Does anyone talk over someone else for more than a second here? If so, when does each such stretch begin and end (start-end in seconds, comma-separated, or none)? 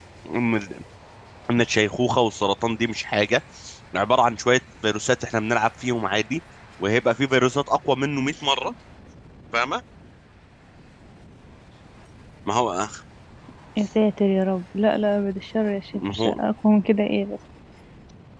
none